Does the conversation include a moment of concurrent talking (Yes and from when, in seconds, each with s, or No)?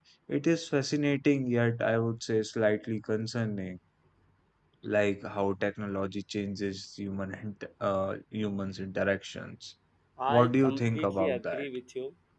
Yes, from 10.3 s